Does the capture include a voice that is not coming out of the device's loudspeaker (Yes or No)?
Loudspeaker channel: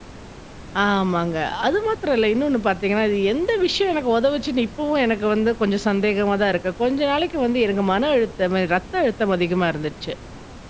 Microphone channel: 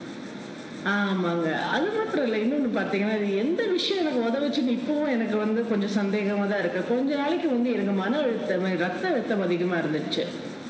No